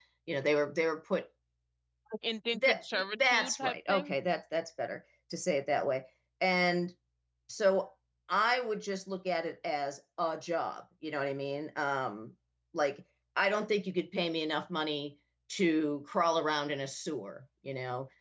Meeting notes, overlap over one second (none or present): present